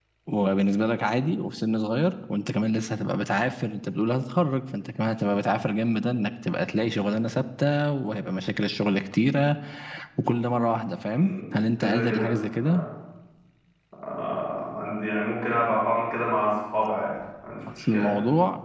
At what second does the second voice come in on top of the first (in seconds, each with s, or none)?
11.1 s